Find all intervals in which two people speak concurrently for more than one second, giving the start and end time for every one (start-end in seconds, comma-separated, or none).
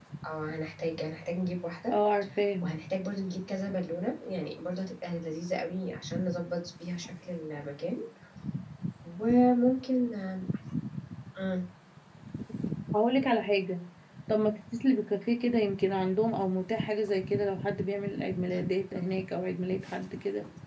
none